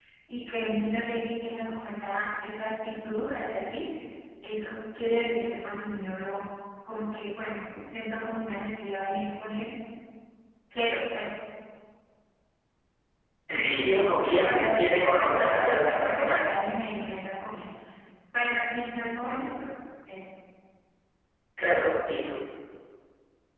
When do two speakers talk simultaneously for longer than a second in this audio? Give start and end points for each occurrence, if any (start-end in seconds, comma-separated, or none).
13.5-16.4